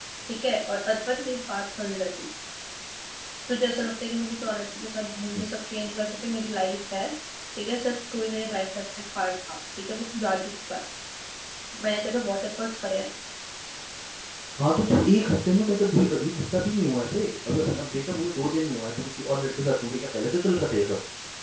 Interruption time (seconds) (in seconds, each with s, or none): none